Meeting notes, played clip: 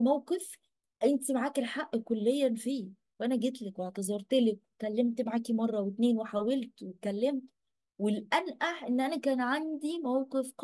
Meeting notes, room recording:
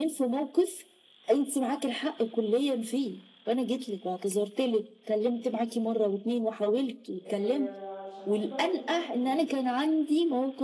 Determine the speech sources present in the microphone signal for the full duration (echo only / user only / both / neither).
both